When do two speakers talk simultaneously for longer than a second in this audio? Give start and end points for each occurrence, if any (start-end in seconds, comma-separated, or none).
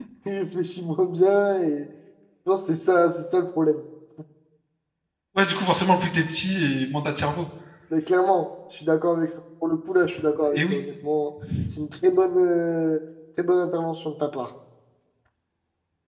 none